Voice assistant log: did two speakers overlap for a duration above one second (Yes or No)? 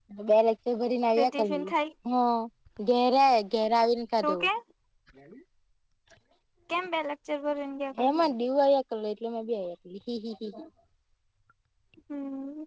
No